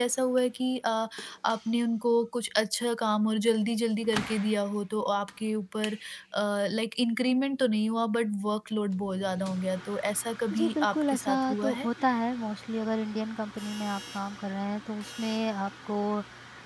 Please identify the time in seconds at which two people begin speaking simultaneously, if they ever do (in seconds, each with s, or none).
10.5 s